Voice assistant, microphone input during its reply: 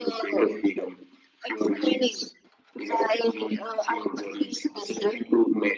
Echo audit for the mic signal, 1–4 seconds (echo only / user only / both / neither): echo only